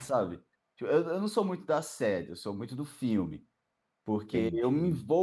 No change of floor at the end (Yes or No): Yes